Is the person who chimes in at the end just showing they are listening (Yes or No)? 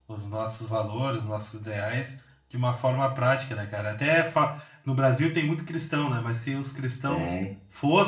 Yes